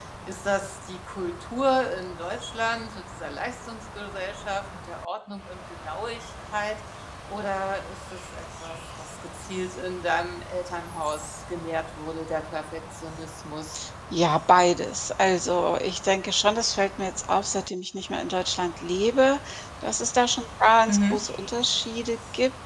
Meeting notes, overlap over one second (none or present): none